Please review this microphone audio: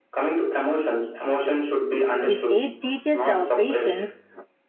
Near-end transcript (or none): This age teaches our patience.